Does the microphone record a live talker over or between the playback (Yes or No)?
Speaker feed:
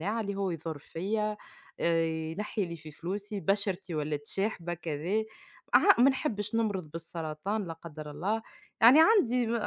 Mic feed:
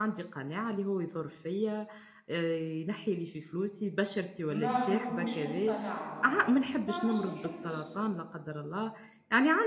Yes